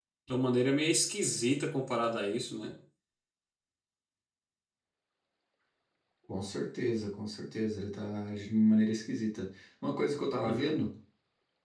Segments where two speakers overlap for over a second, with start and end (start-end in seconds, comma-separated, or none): none